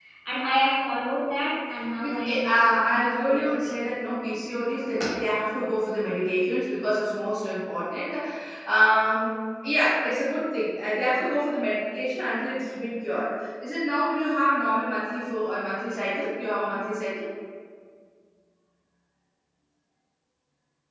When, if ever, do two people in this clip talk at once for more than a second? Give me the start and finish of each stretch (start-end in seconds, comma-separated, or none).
2.0-3.8